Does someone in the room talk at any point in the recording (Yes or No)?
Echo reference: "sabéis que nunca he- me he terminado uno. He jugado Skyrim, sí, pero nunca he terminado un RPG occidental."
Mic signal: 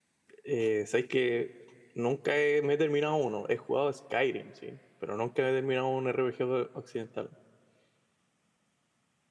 No